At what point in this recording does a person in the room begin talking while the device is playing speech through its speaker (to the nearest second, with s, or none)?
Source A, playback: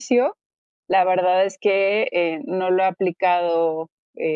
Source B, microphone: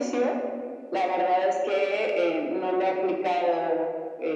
none